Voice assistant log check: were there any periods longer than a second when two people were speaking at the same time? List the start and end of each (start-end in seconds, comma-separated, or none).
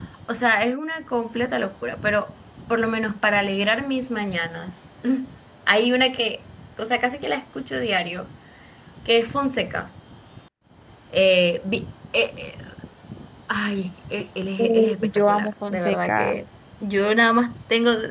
14.6-16.3